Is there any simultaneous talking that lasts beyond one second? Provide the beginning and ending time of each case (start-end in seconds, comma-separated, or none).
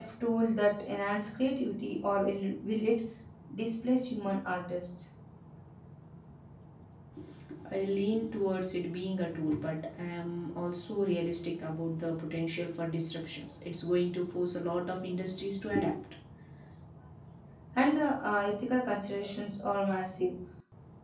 none